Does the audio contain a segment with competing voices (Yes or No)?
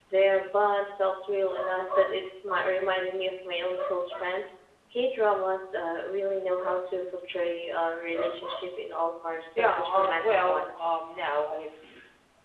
Yes